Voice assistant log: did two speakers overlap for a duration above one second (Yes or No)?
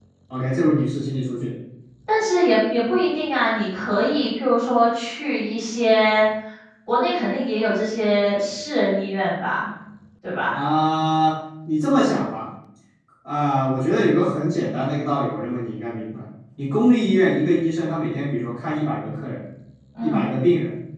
No